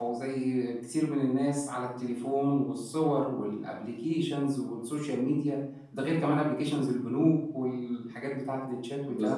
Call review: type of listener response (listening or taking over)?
taking over